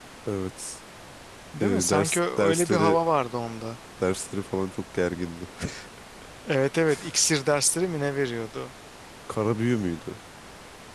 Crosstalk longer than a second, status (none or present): present